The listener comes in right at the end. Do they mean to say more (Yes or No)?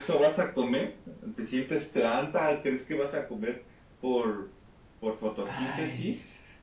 Yes